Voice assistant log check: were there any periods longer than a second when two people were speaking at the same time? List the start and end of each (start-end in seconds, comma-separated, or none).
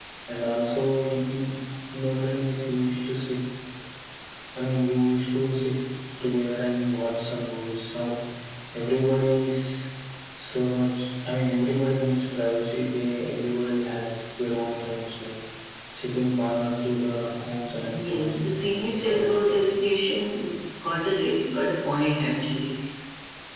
17.8-19.8